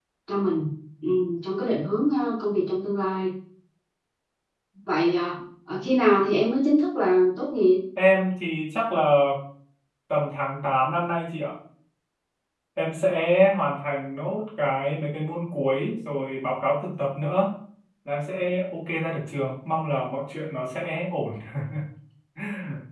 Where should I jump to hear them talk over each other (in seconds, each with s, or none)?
none